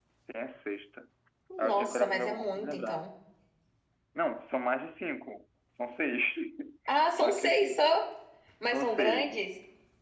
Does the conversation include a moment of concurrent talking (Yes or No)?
Yes